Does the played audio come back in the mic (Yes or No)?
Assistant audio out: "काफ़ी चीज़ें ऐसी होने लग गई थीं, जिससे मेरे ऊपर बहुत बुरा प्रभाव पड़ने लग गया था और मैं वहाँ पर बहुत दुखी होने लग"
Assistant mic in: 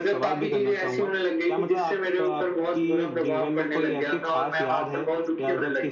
Yes